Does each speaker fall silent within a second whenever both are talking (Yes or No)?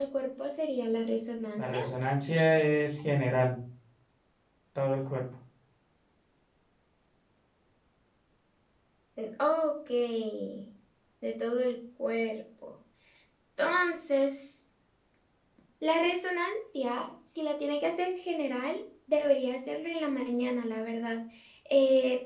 Yes